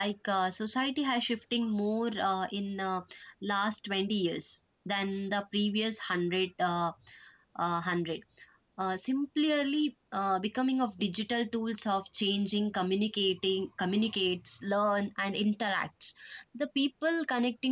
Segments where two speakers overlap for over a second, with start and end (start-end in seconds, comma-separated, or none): none